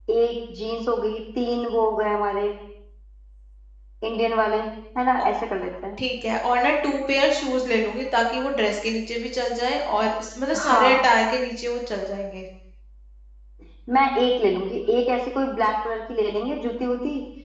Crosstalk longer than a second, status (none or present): none